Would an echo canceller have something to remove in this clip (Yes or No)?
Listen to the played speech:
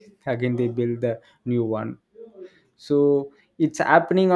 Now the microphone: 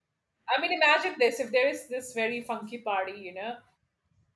No